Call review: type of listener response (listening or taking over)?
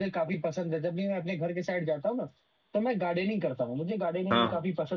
listening